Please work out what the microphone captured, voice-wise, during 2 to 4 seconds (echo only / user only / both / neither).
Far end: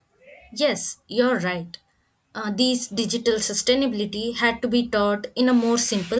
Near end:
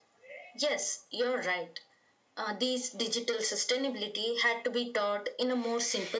echo only